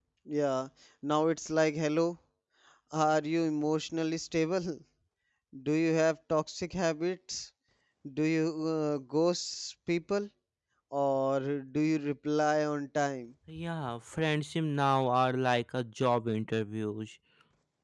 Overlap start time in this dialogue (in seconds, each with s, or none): none